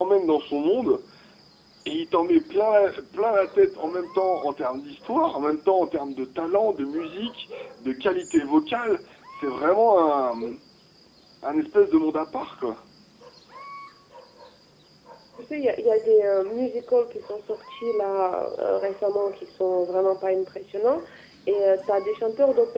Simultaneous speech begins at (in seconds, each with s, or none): none